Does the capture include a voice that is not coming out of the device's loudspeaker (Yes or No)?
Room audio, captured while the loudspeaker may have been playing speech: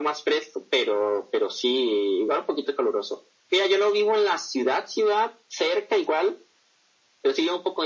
No